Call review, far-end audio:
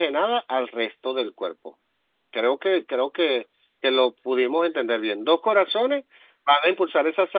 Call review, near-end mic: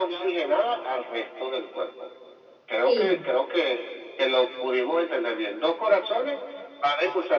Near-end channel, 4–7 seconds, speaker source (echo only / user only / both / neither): echo only